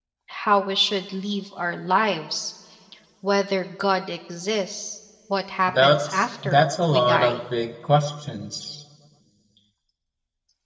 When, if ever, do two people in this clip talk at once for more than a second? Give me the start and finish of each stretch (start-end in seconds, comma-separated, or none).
5.7-7.4